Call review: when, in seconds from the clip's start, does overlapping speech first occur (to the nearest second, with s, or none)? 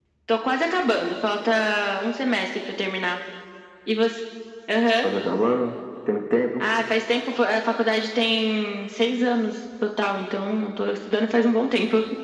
none